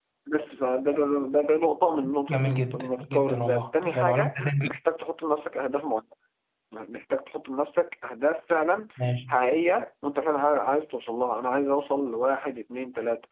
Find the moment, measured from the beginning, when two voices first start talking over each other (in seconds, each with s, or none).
2.3 s